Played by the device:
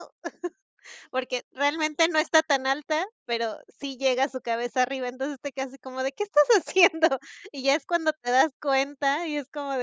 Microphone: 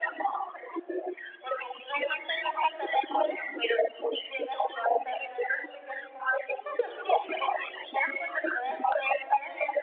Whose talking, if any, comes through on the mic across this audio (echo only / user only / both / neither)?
echo only